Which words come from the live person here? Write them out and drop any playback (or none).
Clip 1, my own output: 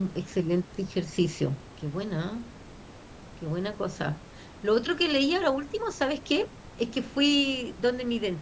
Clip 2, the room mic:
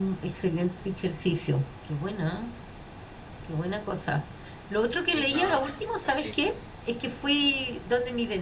Sí, no, eh, sí.